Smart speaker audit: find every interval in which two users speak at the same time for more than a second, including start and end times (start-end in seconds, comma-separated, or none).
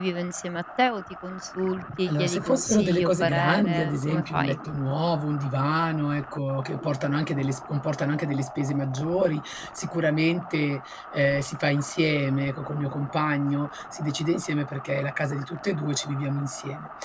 2.0-4.6